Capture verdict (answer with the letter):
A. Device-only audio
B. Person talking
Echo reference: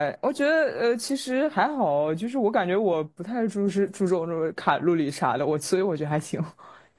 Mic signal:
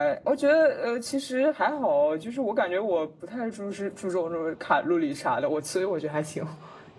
A